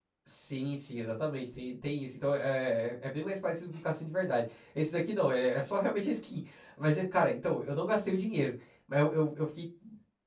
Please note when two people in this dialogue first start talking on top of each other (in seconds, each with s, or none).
none